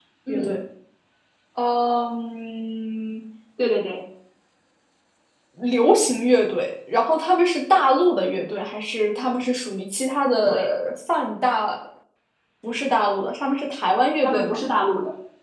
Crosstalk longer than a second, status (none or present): none